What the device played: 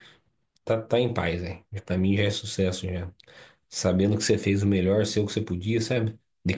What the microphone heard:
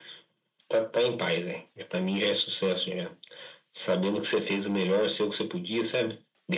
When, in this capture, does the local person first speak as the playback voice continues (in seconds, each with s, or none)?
none